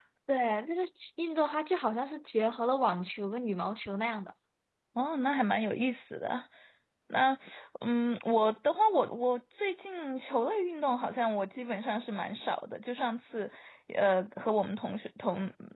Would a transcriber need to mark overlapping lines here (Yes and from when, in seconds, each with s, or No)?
No